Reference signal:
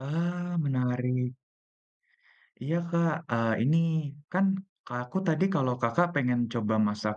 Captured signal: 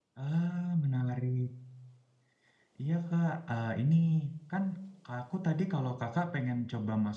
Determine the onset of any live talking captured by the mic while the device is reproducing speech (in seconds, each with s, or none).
none